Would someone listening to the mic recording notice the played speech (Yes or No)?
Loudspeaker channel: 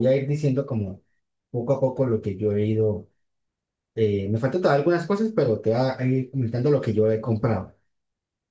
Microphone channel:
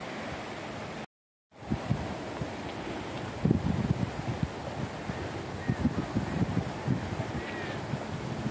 No